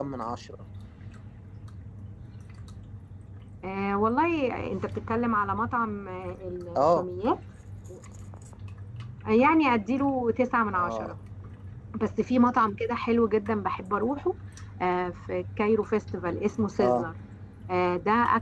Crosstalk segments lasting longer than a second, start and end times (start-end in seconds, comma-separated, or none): none